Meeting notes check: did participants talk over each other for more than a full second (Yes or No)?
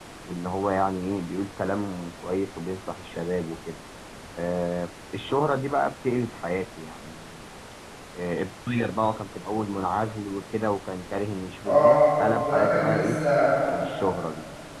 Yes